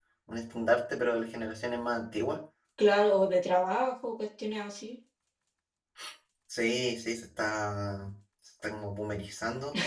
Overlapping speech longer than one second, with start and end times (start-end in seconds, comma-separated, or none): none